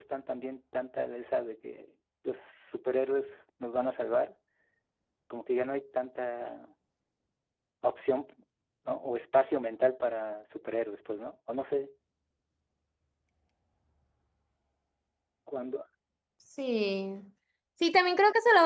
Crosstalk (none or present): none